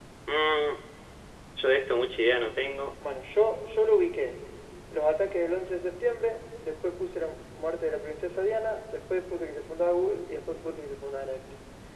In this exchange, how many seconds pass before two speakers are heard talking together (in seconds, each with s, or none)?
none